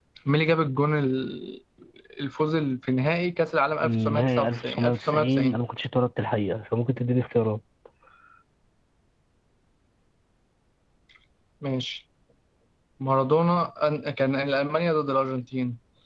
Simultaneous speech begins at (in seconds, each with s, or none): 3.8 s